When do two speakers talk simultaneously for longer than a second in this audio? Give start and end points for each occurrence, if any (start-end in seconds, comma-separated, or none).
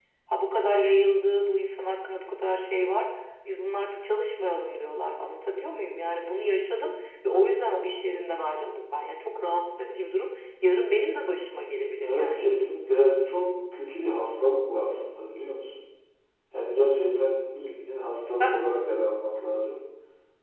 none